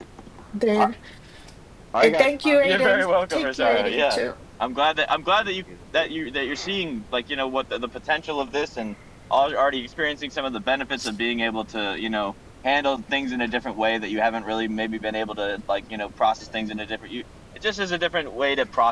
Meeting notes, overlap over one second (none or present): present